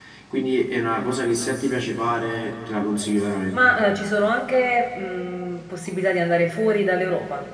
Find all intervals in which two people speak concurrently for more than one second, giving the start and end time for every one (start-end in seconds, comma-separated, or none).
none